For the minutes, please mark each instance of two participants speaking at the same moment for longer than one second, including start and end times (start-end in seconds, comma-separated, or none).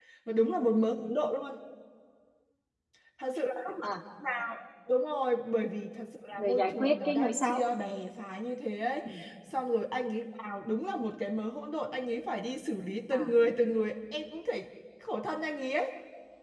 6.3-7.6